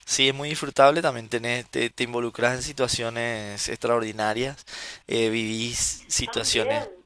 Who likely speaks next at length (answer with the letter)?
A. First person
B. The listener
A